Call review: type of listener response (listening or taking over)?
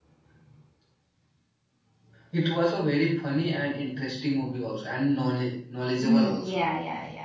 taking over